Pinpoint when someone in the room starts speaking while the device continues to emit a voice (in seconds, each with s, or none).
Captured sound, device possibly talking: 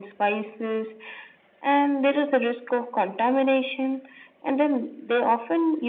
none